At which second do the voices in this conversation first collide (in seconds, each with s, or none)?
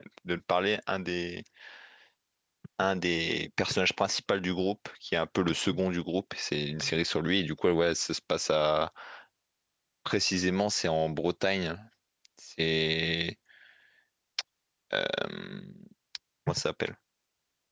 none